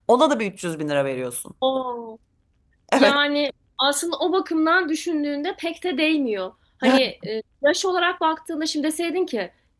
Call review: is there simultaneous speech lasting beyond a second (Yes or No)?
No